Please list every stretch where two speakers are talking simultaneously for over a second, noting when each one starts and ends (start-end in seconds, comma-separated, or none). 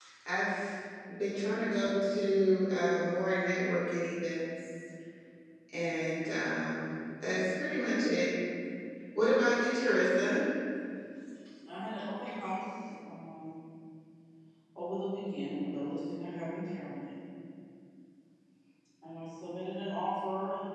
none